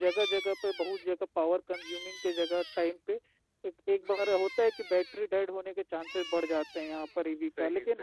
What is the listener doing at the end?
listening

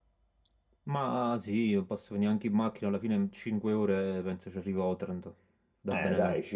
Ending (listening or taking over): taking over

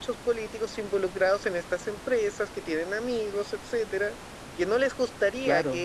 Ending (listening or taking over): listening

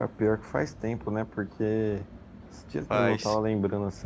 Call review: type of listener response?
listening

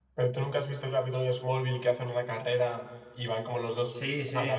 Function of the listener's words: taking over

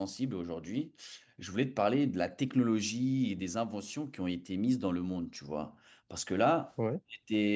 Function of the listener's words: listening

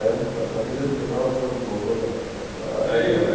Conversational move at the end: listening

